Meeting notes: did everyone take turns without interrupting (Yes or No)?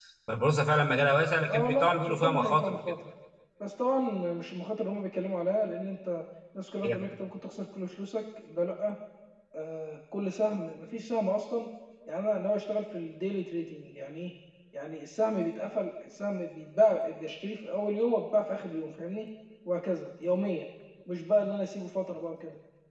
No